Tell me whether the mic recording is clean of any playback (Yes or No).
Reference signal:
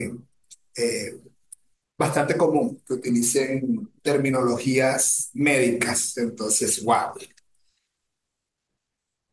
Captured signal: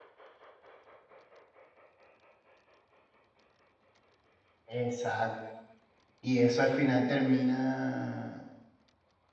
Yes